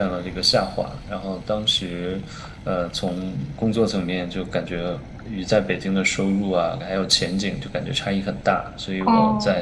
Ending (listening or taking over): listening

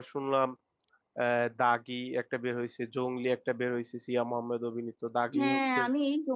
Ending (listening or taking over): taking over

